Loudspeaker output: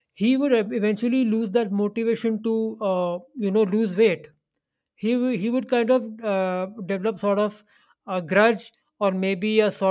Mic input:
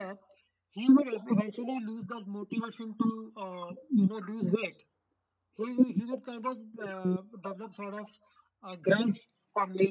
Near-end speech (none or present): none